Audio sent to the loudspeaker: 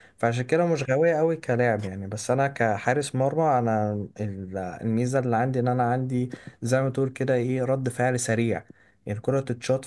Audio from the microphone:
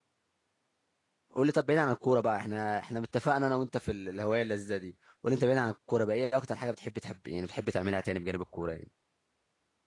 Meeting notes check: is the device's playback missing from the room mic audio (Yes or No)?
Yes